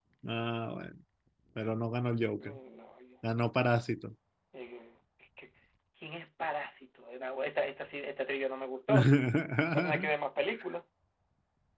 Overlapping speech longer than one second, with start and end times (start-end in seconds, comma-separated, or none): none